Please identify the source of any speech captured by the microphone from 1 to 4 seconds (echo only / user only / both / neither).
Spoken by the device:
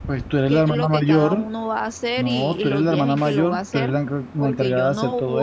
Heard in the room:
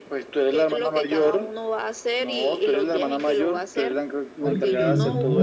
echo only